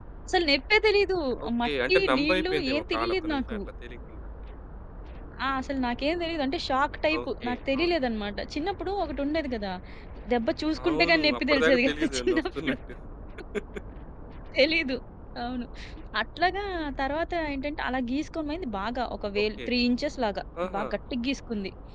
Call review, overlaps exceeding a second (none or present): present